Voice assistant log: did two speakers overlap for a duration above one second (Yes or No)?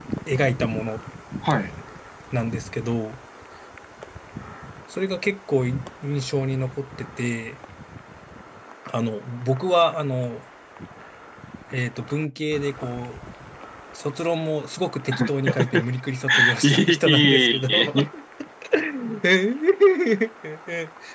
Yes